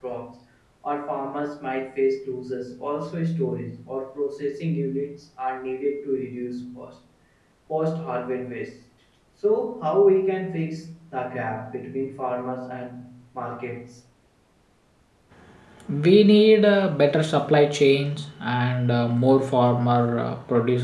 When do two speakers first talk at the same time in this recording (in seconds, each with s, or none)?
none